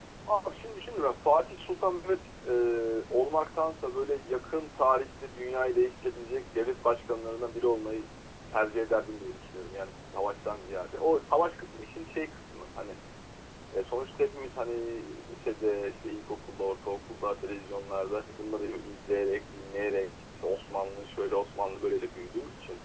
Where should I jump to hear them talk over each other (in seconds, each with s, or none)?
none